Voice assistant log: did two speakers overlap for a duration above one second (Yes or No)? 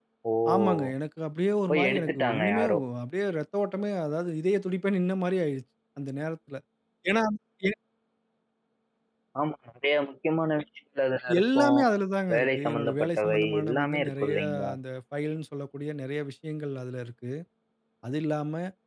Yes